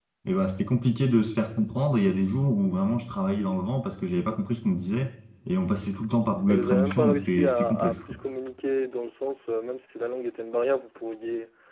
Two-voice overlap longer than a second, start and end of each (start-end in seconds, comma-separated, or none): 6.5-8.0